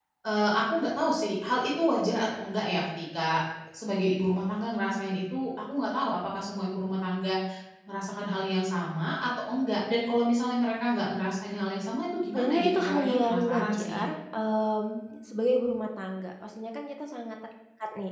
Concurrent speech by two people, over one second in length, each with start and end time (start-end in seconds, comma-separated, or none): 12.3-14.0